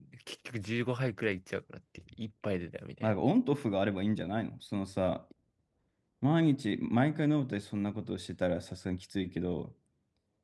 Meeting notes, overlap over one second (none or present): none